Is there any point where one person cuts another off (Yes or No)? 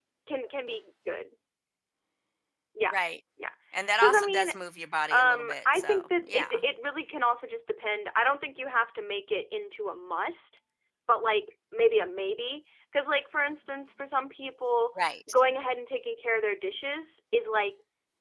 Yes